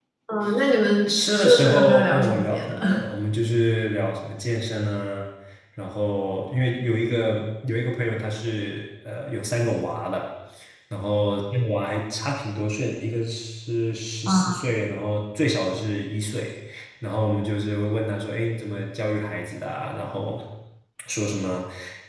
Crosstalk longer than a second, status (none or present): present